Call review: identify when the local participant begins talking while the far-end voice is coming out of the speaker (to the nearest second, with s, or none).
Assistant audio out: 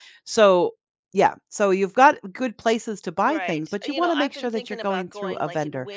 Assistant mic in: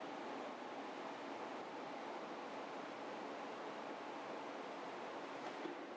none